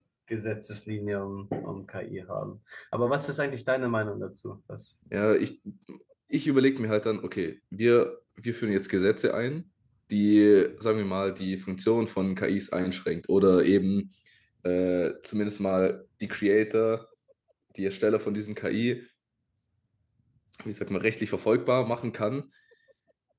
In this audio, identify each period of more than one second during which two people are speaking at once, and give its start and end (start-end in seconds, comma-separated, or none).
none